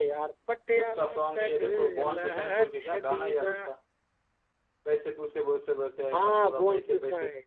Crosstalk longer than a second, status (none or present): present